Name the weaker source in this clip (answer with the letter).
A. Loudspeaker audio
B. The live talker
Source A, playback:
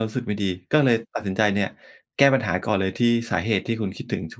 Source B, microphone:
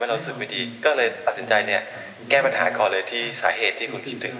B